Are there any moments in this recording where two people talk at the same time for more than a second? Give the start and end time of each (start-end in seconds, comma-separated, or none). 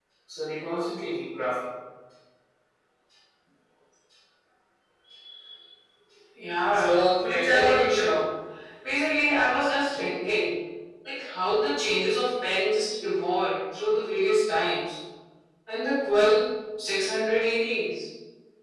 6.7-8.1